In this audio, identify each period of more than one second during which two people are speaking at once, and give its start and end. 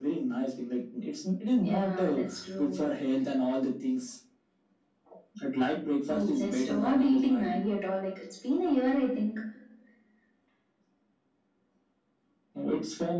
1.6-2.9, 6.1-7.6

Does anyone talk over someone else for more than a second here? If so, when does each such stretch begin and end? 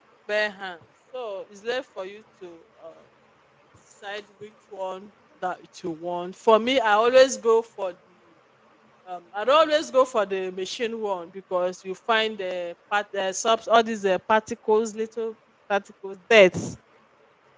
none

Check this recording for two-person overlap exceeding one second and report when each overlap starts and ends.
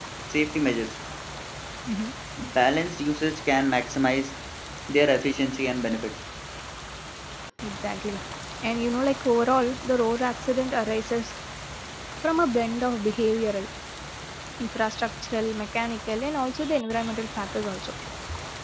none

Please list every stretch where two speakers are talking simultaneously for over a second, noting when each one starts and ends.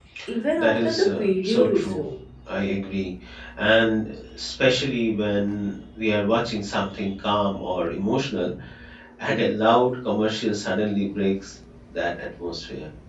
0.6-2.0

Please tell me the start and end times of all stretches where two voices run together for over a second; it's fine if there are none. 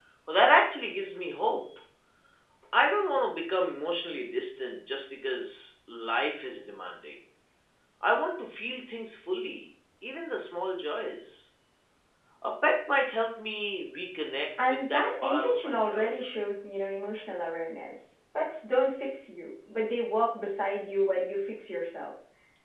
14.6-16.3

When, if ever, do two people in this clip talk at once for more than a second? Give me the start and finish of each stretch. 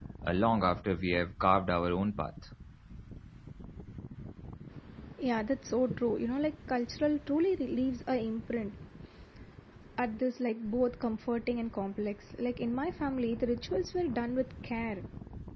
none

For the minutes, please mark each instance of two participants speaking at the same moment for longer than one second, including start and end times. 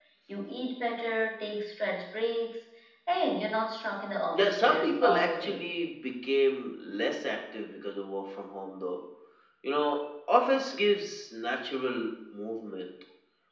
4.3-5.6

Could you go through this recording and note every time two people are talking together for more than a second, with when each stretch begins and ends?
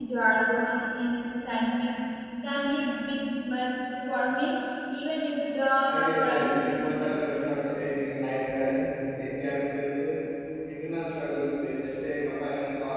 5.8-7.1

